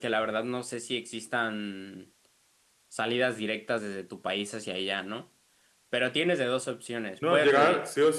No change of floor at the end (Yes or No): No